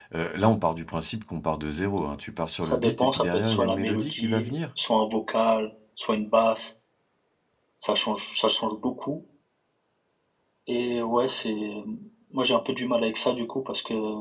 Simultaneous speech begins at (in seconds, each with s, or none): 2.6 s